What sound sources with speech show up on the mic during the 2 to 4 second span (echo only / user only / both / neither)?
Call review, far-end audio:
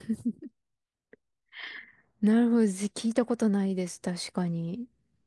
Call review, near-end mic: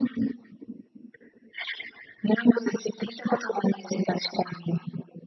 echo only